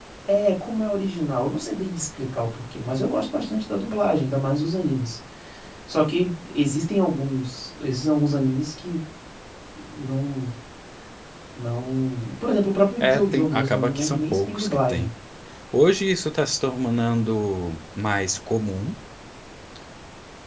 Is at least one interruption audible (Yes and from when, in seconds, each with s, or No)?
Yes, from 13.0 s